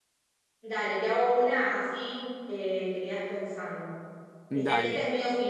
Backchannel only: Yes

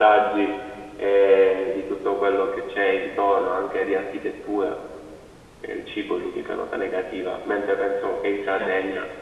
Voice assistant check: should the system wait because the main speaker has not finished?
No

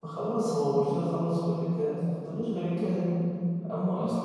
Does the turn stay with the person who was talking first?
Yes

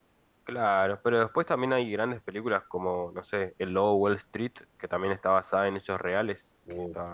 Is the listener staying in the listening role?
No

